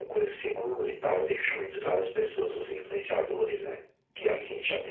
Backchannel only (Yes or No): Yes